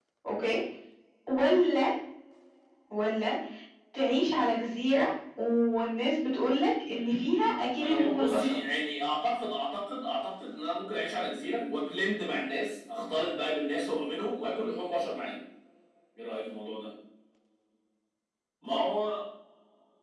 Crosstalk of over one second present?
Yes, from 6.9 s

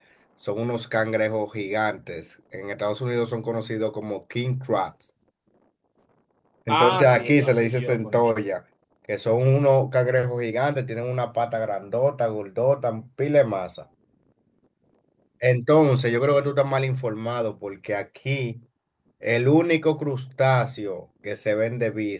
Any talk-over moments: Yes, from 6.7 s

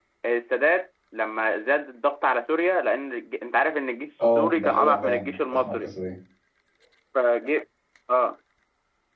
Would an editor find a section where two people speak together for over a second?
Yes, from 4.2 s

